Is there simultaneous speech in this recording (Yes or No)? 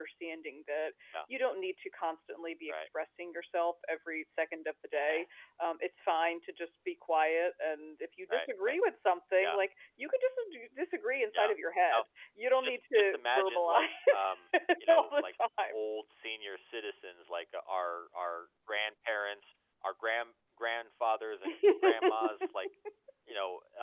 Yes